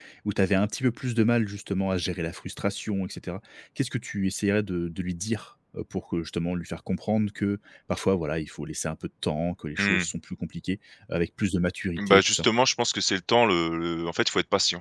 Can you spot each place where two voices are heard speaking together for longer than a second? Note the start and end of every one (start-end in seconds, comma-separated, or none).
none